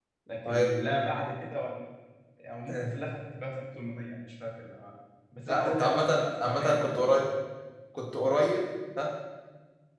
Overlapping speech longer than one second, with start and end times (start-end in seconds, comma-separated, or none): 5.5-7.2